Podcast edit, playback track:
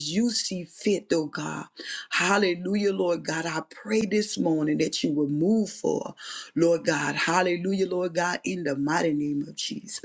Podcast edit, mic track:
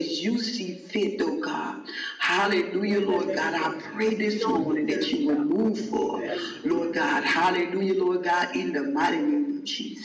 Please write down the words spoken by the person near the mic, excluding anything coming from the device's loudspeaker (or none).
in the name of Jesus. We don't deserve it, God, but we continue asking for mercy, God,